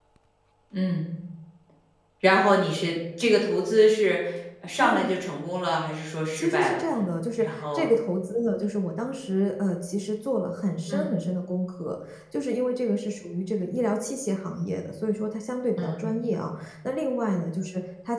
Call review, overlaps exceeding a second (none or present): none